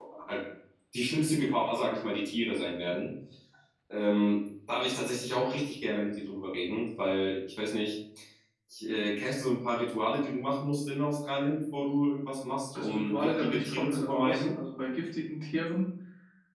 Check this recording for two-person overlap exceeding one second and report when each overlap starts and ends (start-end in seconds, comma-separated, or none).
12.7-14.5